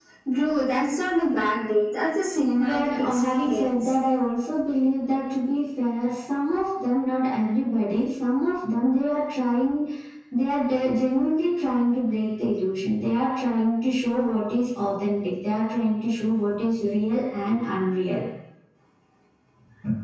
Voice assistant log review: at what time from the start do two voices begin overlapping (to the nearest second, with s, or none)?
3 s